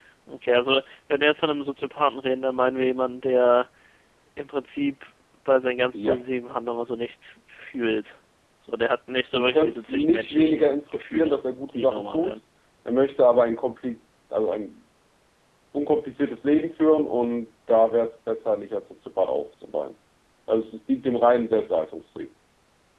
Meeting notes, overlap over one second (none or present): present